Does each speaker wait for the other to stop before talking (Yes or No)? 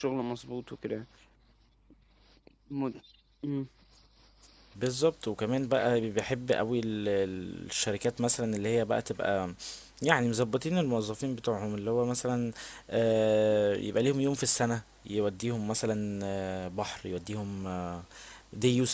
Yes